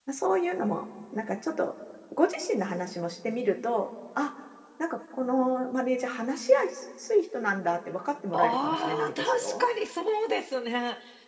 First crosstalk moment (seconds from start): 8 s

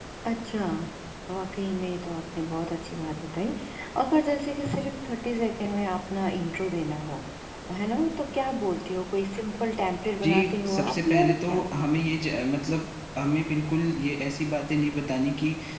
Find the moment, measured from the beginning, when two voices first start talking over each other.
10 s

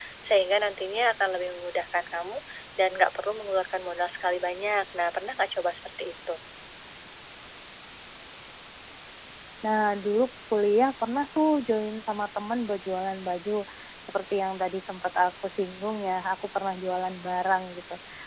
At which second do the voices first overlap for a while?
none

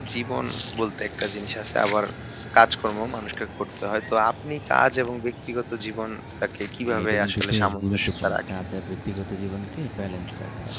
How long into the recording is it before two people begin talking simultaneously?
7 s

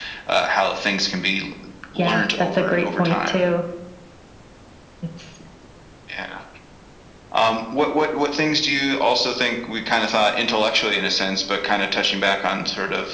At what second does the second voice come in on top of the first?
2 s

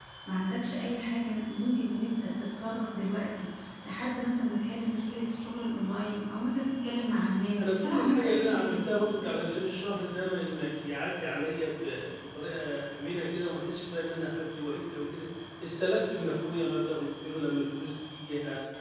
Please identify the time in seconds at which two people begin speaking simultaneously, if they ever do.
8 s

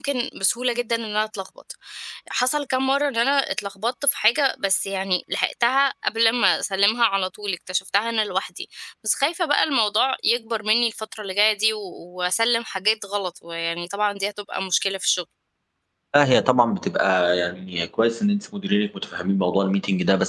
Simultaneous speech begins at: none

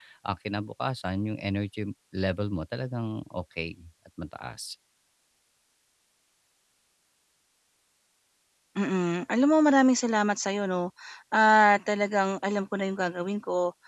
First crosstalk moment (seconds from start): none

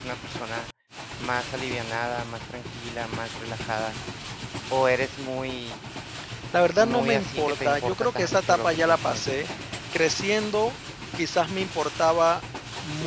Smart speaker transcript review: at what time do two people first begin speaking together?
7 s

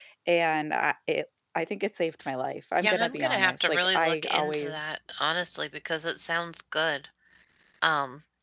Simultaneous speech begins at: 3 s

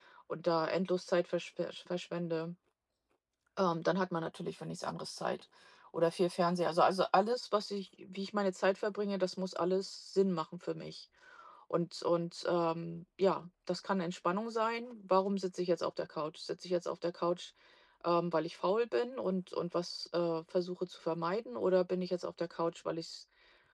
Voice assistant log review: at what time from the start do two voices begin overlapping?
none

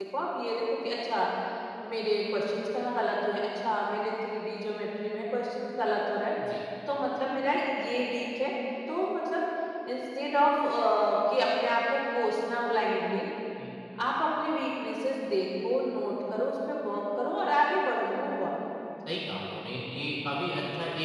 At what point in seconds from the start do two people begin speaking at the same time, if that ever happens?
none

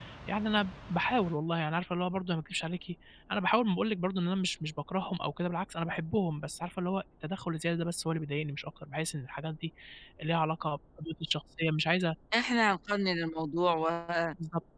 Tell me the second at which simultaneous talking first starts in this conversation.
none

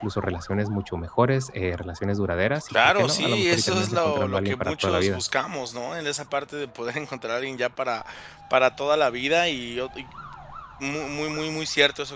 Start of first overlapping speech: 3 s

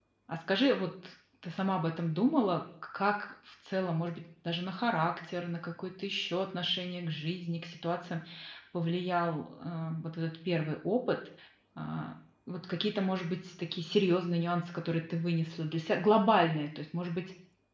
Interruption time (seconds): none

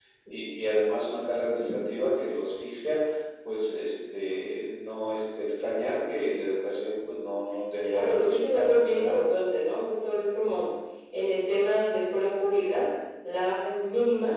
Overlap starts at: 8 s

